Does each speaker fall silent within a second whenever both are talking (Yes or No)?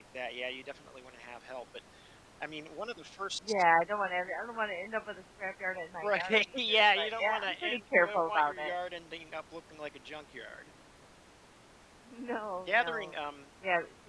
No